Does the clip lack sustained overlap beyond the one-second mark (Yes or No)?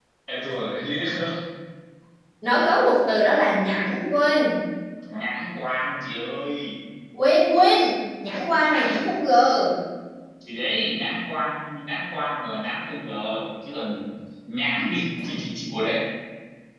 Yes